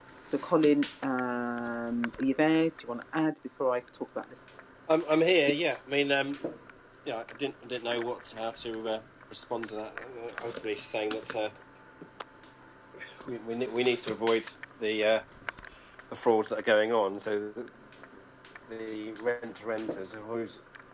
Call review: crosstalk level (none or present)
none